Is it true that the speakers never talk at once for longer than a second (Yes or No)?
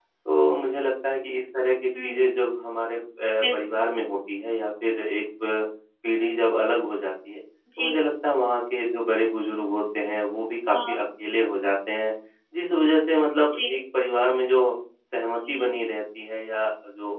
Yes